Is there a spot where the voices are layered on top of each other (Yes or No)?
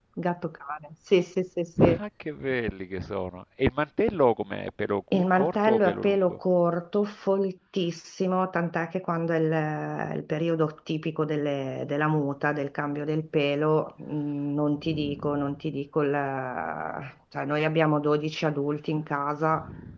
Yes